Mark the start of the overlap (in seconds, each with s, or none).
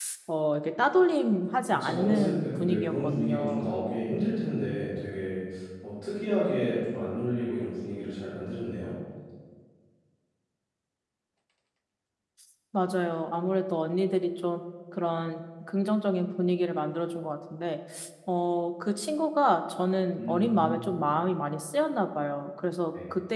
1.7 s